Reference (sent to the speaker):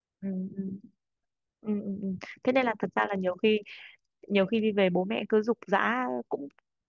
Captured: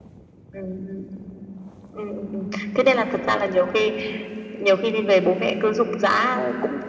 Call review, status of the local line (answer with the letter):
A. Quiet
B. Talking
A